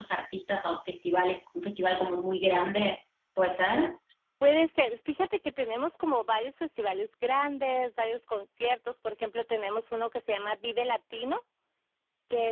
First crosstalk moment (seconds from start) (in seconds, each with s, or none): none